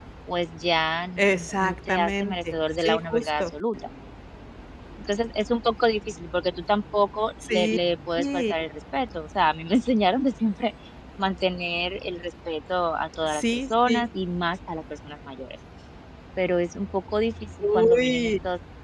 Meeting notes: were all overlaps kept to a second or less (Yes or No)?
No